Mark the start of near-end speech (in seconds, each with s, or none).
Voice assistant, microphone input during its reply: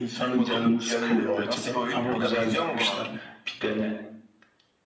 none